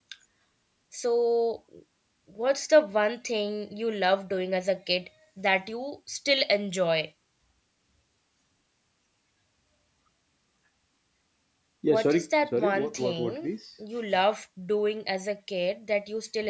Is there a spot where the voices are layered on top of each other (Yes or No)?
Yes